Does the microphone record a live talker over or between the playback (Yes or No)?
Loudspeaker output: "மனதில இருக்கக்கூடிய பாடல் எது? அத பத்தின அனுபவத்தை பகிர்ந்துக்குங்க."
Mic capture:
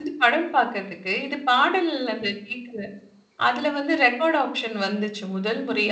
Yes